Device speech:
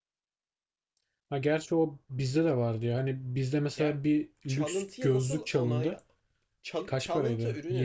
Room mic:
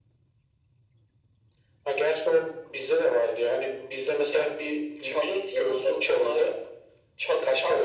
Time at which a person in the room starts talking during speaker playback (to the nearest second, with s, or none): none